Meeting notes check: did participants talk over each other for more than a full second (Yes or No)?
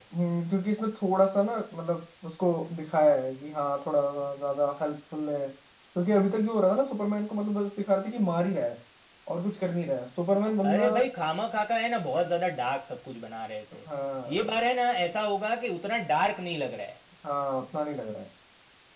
No